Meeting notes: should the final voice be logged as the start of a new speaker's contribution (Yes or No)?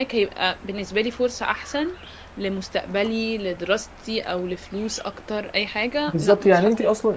Yes